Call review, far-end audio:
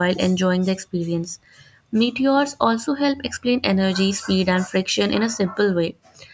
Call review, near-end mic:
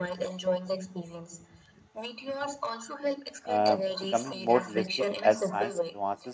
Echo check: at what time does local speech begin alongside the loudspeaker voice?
3.5 s

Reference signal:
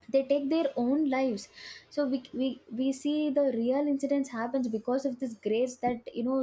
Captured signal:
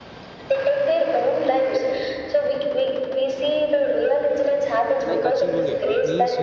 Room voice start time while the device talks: 5.1 s

